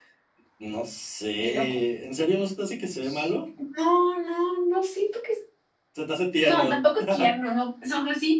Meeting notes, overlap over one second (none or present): none